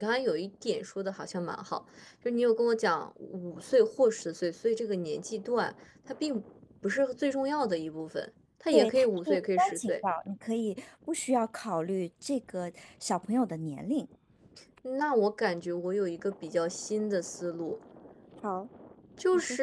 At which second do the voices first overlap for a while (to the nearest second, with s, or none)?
9 s